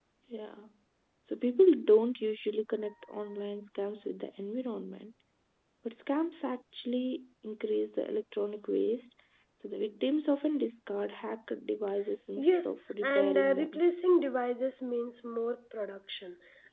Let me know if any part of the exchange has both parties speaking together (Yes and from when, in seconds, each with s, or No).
Yes, from 12.4 s